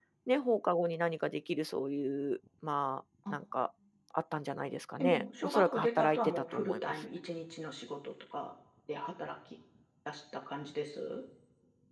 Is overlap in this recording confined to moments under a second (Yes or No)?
No